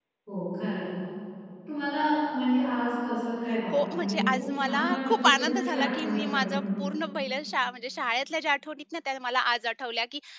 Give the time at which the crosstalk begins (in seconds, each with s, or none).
3.7 s